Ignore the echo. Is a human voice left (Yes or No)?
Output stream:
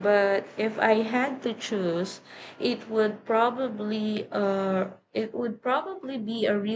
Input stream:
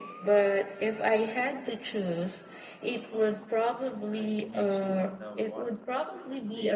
Yes